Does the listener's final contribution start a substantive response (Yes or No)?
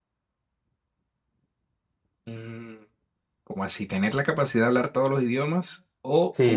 Yes